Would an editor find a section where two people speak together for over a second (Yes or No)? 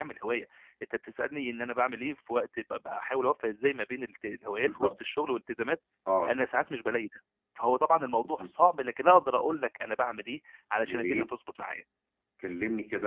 No